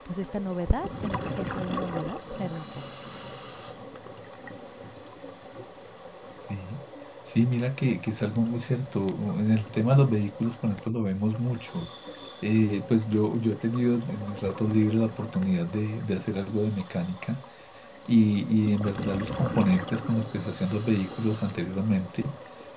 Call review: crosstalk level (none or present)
none